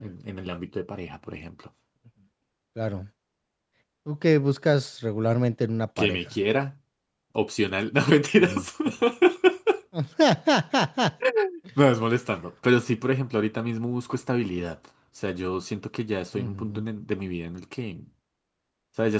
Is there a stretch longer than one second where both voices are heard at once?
No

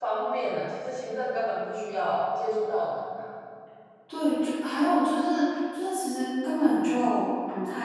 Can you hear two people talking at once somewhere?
No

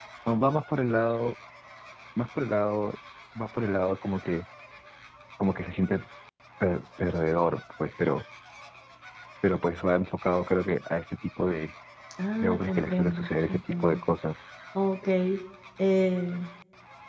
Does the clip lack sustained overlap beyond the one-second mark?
No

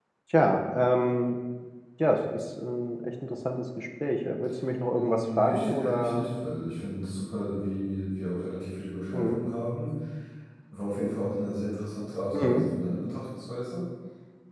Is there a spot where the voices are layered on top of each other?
Yes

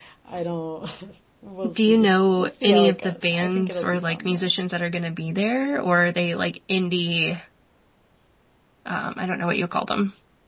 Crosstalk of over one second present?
Yes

